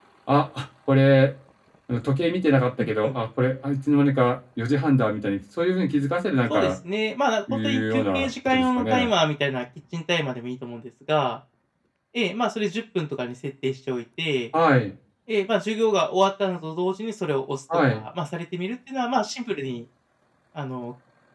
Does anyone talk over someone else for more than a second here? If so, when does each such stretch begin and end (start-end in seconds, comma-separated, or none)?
7.6-9.1